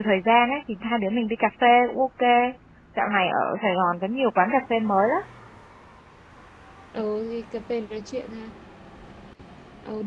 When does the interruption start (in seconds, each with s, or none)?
none